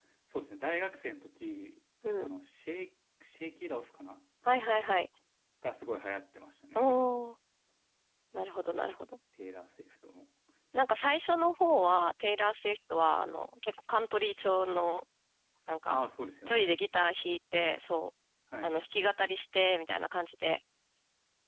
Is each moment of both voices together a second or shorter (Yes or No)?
Yes